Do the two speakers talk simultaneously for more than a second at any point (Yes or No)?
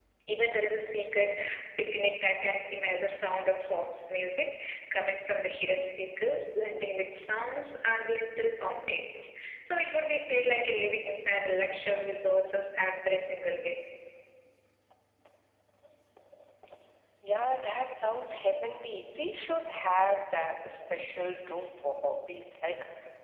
No